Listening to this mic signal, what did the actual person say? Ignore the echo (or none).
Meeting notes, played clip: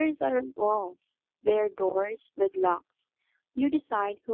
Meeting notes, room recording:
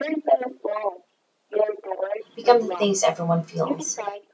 become the things everyone feels?